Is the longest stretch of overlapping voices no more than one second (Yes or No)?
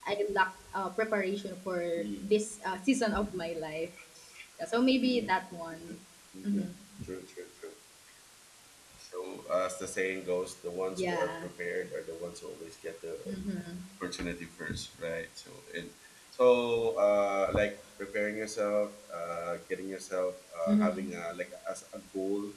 Yes